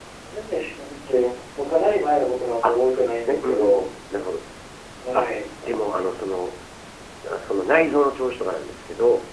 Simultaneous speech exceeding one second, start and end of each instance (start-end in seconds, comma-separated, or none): 2.6-3.9